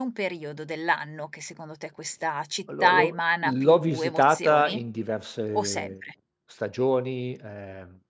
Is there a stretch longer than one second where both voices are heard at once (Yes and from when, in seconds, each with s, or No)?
Yes, from 2.8 s